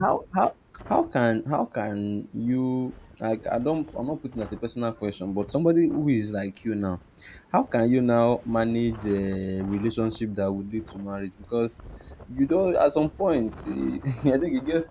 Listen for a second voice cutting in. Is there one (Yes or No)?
No